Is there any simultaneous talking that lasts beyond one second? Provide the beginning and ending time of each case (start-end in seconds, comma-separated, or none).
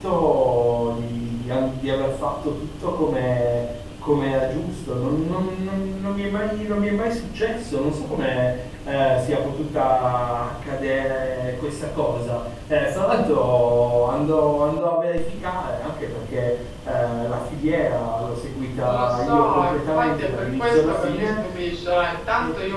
18.8-21.3